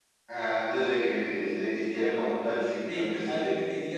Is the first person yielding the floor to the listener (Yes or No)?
Yes